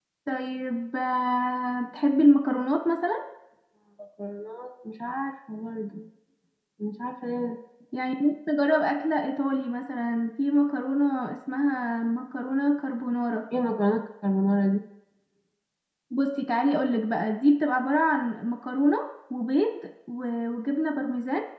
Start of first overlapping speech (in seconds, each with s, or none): none